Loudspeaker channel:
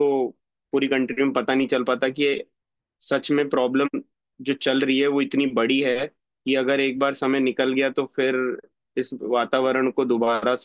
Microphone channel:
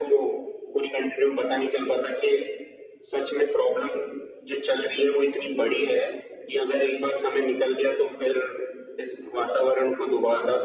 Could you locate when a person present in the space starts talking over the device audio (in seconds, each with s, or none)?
none